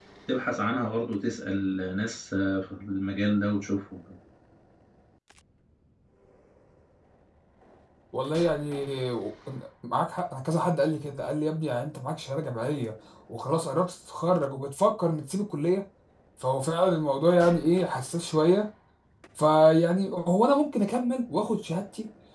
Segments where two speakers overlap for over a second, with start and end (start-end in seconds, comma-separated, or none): none